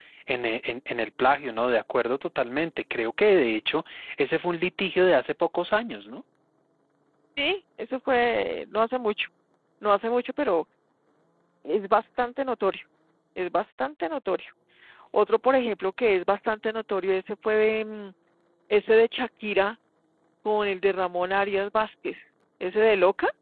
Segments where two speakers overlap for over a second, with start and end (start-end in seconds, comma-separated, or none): none